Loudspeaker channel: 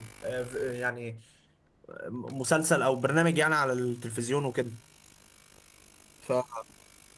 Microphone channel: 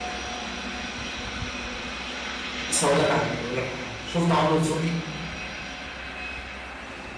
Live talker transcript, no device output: بص هقول لك على حاجه اقول لك على حاجه شفت عمرو نصوحي

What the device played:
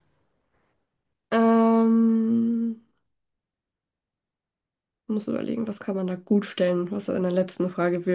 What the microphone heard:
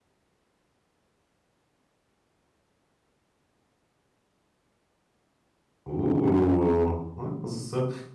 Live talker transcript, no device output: Uh, ne, das ist, äh,

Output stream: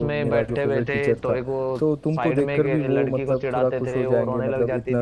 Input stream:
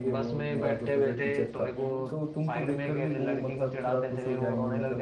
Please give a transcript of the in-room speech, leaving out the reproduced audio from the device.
हम्म

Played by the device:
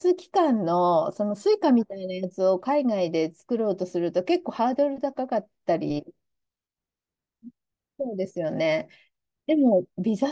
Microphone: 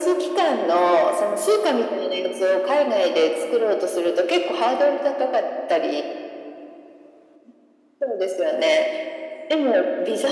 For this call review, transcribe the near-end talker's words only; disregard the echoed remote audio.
none

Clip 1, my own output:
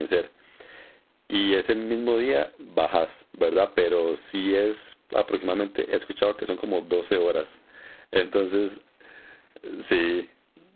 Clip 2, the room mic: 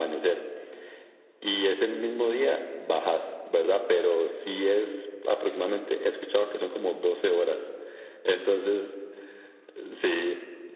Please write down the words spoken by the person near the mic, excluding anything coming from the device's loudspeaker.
none

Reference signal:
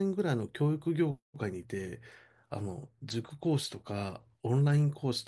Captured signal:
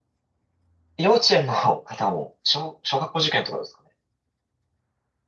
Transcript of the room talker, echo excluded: 幼稚園の方も、小、小学校受験とかですかね。

